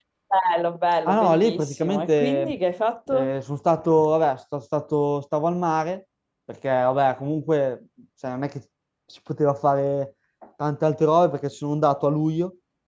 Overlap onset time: 1 s

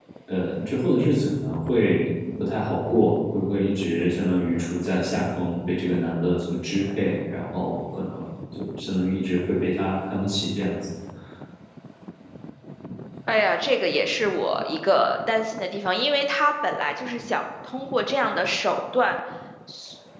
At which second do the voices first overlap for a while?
none

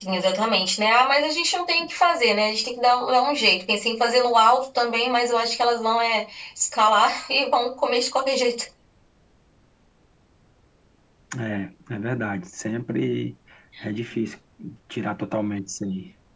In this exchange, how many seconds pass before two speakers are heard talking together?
none

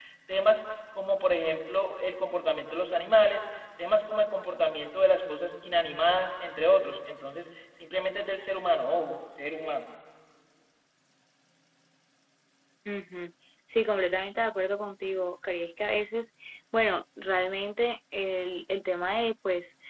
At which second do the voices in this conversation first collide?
none

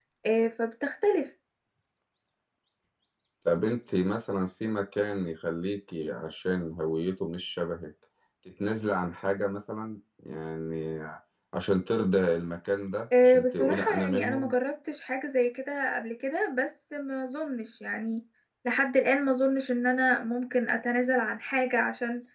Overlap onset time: 13 s

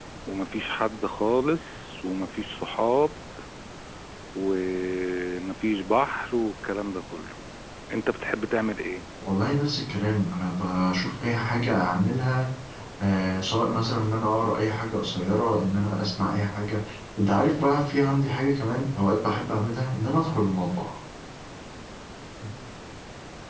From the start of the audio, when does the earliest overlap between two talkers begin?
none

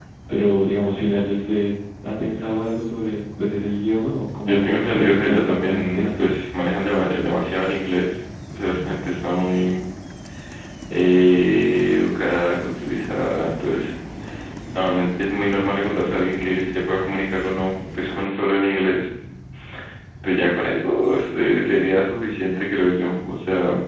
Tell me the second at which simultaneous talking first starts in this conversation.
4 s

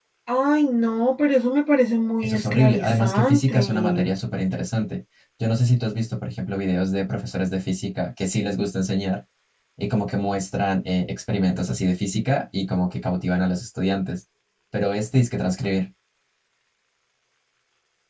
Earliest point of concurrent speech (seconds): 2 s

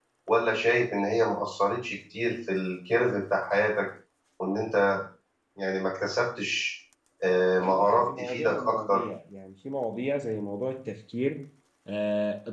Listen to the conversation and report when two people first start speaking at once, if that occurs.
8 s

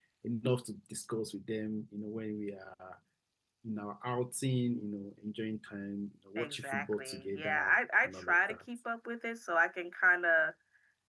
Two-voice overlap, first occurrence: 6 s

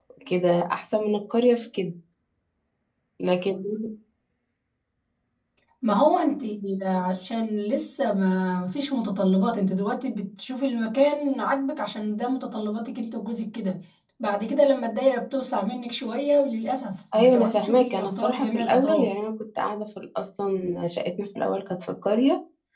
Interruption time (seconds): 17 s

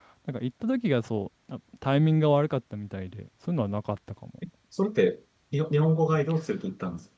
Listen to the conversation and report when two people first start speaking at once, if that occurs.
none

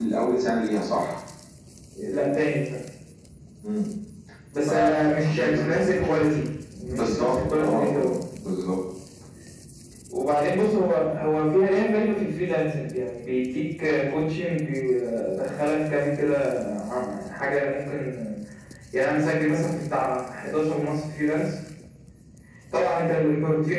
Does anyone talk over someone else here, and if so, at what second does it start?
5 s

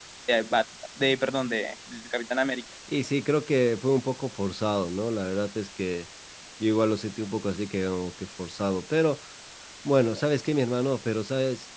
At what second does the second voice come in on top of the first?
none

